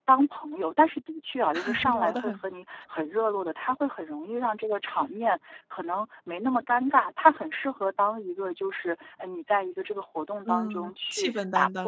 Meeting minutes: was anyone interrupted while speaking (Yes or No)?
Yes